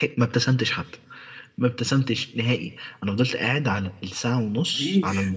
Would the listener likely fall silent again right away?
Yes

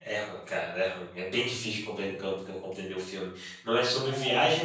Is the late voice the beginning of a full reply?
No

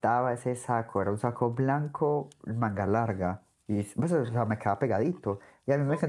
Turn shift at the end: No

